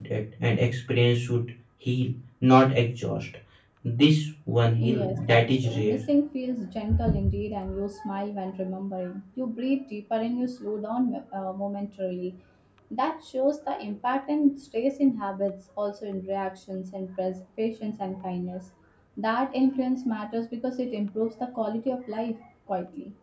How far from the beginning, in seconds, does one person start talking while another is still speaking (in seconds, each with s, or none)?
4.8 s